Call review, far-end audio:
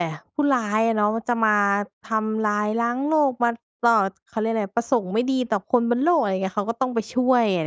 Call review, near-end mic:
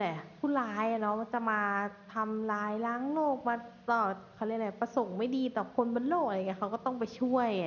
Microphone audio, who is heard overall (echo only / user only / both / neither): echo only